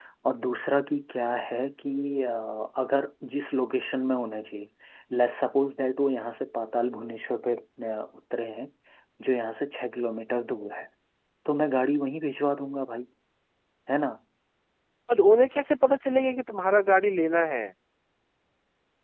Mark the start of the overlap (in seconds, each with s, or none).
none